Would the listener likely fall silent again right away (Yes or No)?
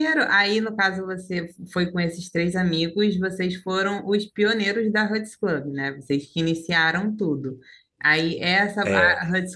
Yes